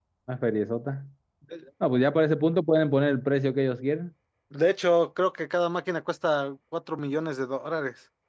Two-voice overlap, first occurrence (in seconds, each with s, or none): none